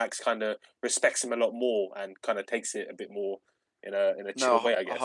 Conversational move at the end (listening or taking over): taking over